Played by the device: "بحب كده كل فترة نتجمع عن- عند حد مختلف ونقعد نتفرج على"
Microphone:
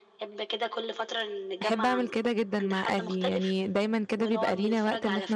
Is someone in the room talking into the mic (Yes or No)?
Yes